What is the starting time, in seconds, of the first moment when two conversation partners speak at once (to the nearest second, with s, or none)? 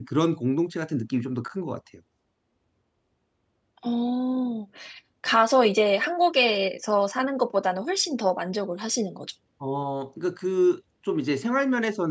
none